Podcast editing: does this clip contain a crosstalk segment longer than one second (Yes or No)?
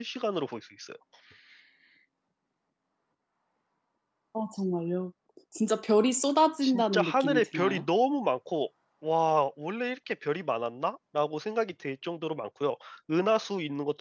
Yes